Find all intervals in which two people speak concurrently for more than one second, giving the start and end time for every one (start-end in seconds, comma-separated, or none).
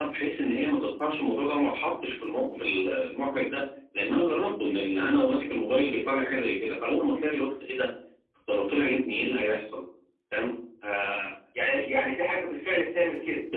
none